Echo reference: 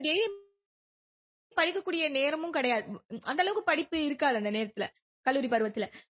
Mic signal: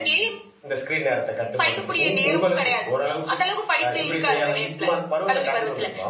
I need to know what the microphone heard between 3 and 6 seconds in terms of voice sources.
both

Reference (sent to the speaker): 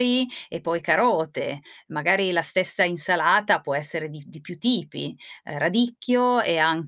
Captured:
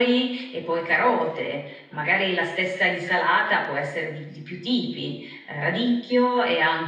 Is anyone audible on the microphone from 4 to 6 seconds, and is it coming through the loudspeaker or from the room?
echo only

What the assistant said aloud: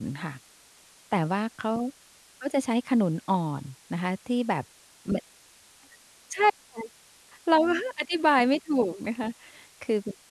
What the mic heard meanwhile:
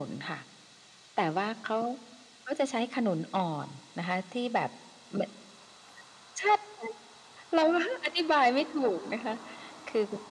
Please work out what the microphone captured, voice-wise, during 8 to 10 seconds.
echo only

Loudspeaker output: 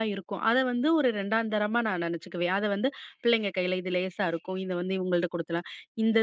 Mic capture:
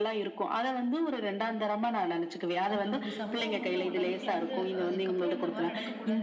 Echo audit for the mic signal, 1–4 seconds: both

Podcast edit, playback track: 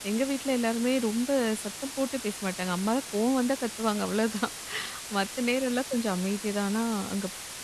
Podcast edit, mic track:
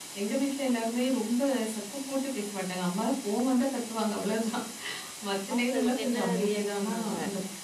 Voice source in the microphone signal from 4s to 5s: echo only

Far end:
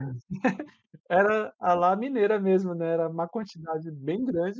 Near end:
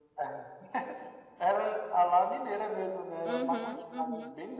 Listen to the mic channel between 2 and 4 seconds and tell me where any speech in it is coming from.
both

